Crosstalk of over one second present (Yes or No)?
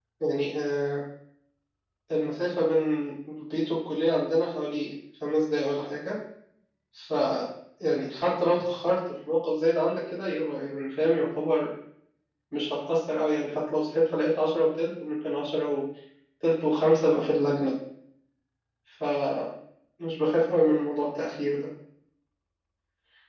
No